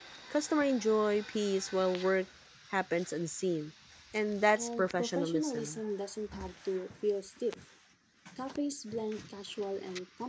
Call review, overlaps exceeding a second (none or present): present